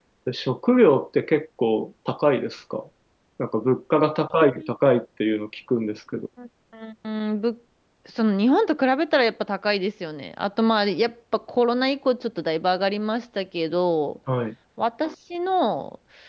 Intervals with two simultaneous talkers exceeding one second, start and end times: none

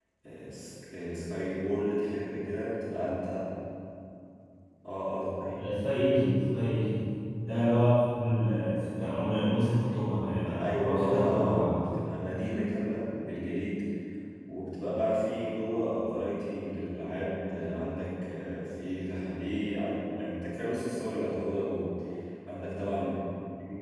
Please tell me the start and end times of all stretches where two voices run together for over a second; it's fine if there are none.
10.5-11.8

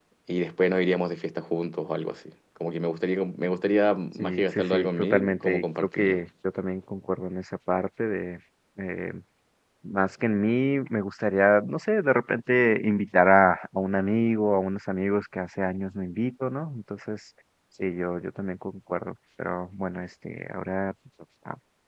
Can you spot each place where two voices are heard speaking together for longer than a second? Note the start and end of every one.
4.2-6.2

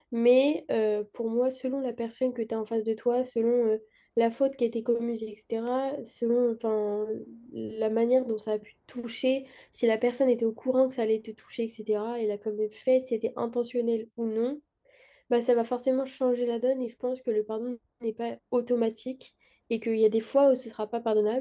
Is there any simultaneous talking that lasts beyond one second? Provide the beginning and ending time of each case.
none

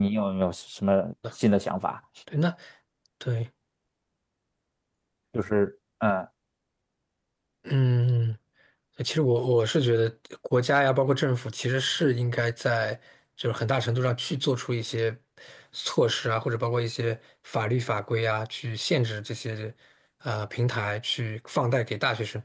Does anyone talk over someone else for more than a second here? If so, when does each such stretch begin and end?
none

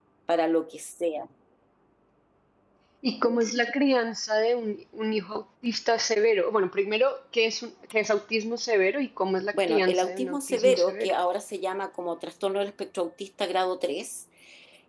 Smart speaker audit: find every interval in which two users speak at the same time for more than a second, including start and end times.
9.7-11.1

